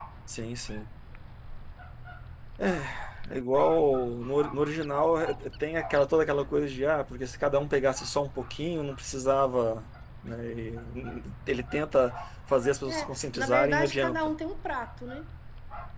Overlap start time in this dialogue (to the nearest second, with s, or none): 13 s